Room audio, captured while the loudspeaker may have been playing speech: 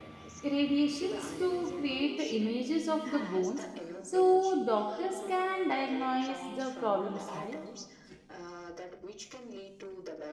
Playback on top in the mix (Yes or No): No